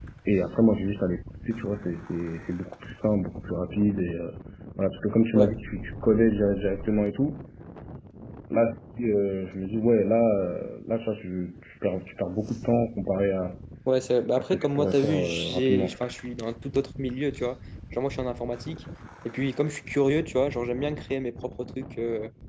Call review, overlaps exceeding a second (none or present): present